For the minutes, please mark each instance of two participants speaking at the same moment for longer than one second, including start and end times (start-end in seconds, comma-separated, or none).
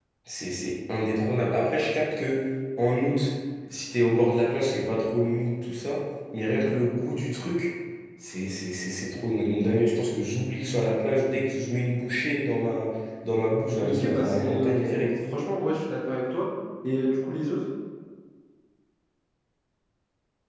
13.8-15.2